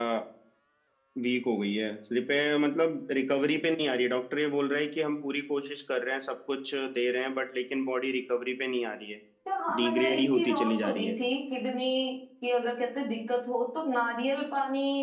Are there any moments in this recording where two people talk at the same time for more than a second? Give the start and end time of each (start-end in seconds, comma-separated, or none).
9.8-11.1